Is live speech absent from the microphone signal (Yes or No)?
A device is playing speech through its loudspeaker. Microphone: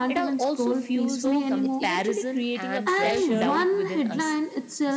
No